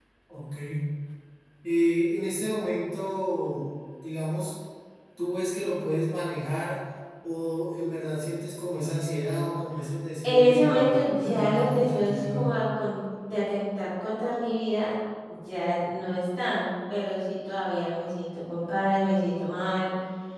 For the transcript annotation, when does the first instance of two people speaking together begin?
10.2 s

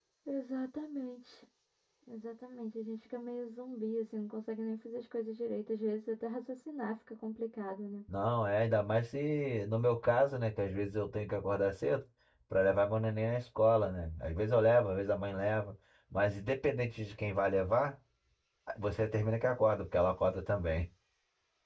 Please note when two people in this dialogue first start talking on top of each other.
none

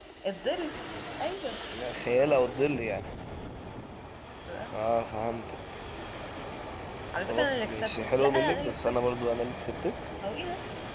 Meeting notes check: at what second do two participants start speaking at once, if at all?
7.3 s

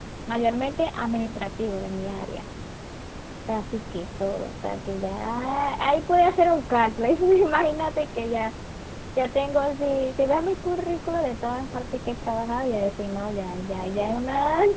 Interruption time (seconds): none

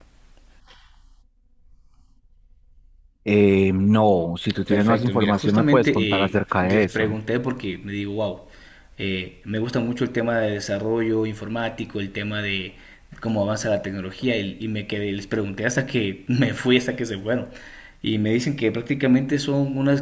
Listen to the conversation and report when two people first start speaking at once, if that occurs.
4.7 s

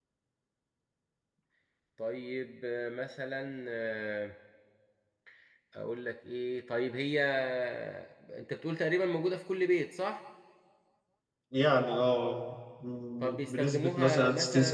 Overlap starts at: 13.2 s

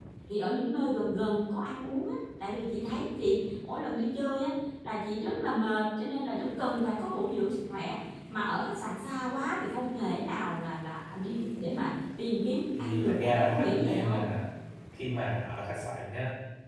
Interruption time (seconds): 12.8 s

